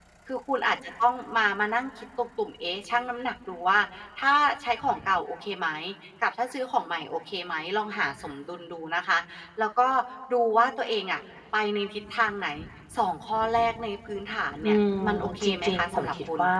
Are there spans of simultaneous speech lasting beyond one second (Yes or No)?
Yes